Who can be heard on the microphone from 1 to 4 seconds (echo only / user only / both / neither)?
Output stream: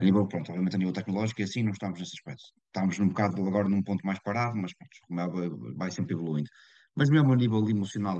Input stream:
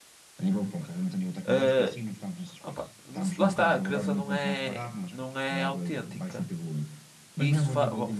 both